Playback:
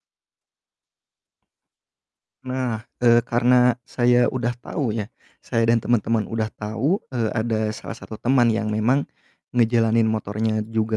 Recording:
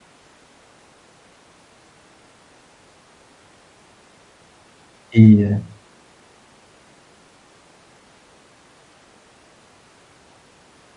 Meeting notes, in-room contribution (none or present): present